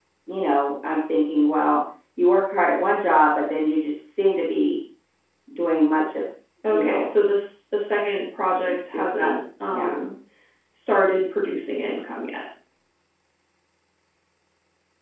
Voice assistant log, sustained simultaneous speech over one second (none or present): none